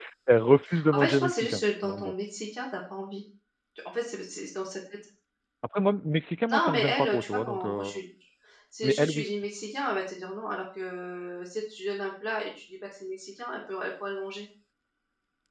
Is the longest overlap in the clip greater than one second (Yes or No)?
Yes